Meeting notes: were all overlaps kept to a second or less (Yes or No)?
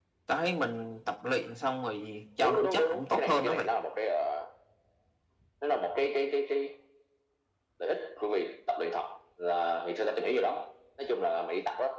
No